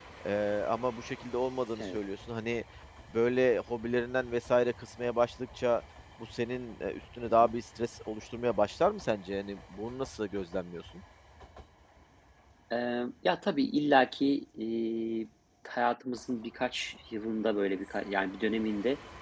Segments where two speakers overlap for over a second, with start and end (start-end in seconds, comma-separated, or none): none